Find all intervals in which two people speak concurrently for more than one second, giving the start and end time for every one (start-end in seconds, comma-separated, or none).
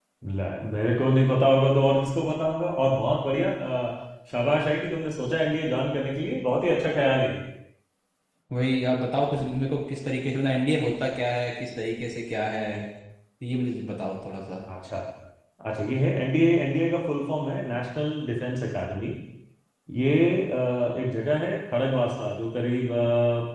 none